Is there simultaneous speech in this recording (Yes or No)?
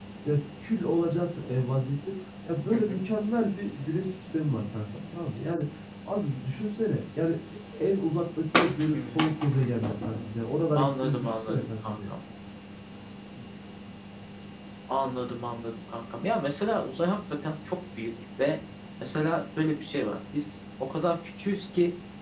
Yes